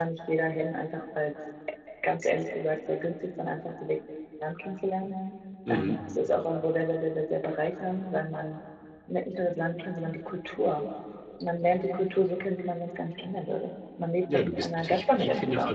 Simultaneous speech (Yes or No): Yes